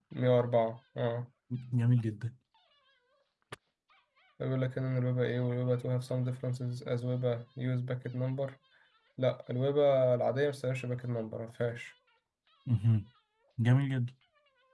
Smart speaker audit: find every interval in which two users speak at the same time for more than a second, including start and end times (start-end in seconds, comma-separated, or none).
none